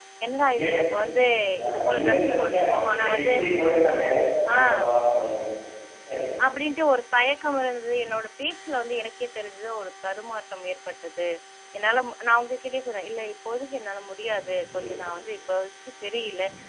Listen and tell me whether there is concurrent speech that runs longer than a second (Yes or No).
Yes